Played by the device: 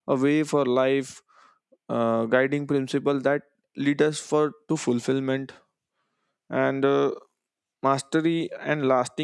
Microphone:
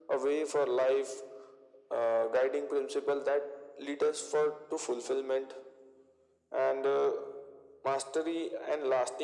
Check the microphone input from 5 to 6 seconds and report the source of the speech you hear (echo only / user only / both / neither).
echo only